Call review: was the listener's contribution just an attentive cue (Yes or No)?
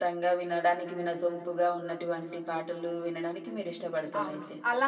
No